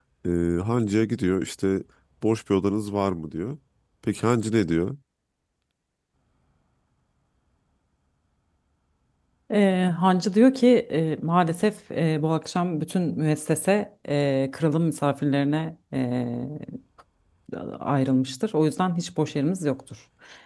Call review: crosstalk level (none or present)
none